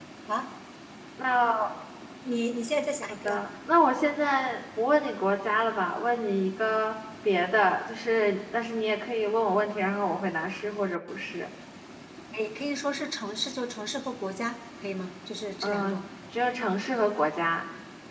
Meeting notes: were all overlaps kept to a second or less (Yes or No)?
Yes